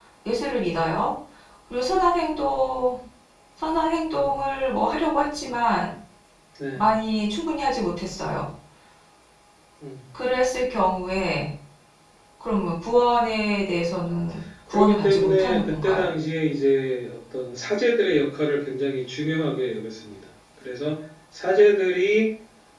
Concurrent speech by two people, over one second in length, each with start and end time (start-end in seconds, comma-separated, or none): 14.7-16.1